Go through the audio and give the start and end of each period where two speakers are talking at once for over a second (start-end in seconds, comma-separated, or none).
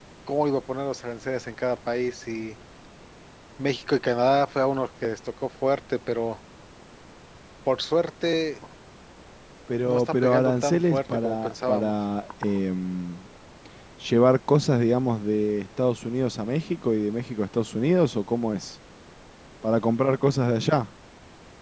9.8-11.9